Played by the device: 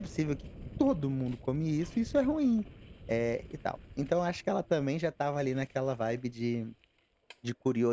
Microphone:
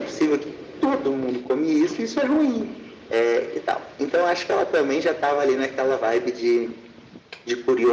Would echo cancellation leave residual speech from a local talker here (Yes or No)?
No